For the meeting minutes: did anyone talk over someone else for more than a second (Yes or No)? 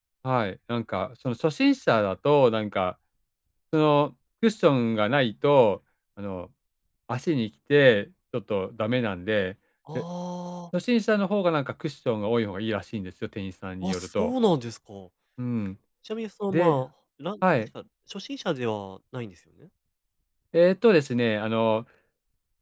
No